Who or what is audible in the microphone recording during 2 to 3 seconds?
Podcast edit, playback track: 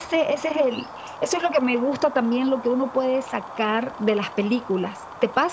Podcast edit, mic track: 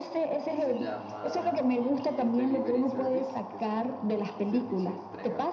both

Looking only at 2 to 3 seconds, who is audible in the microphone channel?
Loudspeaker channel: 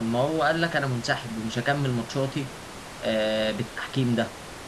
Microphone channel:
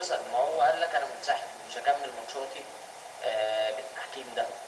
echo only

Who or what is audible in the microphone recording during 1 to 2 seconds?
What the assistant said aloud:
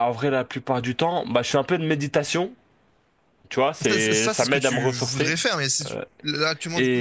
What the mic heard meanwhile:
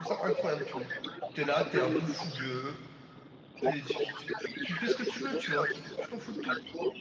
both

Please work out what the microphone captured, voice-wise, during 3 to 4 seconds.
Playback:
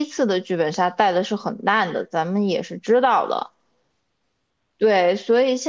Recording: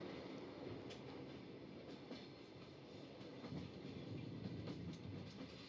neither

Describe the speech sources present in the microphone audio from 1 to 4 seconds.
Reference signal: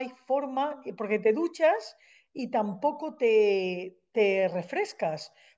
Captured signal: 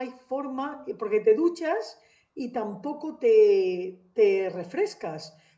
echo only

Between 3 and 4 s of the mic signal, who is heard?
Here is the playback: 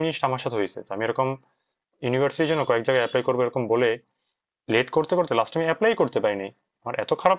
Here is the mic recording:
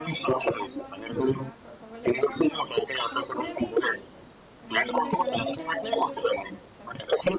both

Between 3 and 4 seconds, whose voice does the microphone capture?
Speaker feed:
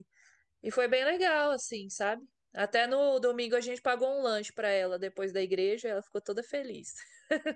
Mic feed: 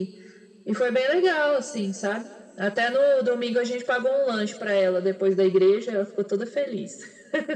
echo only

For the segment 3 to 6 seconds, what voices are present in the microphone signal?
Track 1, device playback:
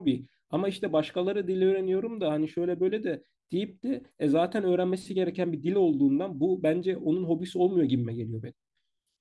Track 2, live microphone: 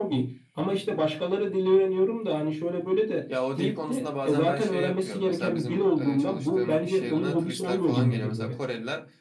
both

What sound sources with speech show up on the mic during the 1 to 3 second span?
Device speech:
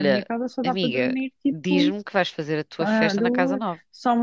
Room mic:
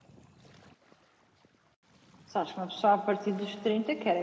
user only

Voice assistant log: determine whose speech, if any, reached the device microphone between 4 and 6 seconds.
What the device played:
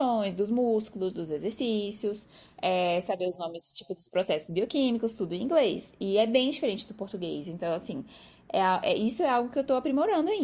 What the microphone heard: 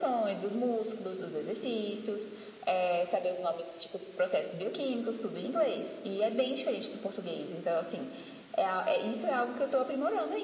echo only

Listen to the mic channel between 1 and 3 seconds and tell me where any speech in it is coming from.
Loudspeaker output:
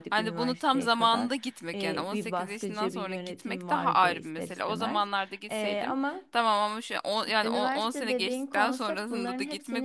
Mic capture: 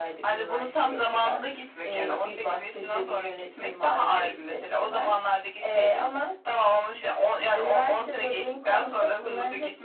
echo only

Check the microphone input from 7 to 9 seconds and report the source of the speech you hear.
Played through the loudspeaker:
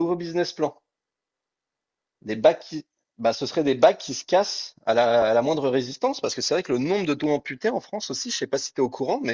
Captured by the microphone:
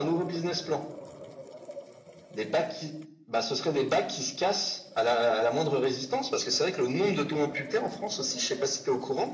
echo only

